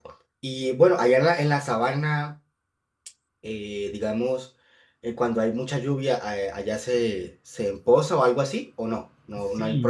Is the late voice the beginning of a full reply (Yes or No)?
Yes